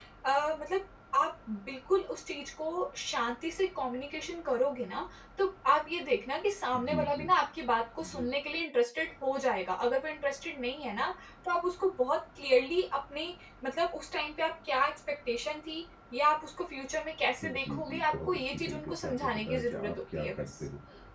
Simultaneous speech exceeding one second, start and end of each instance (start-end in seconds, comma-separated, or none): 17.4-20.5